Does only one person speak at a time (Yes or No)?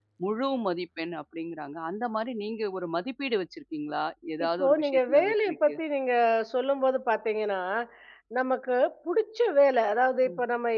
No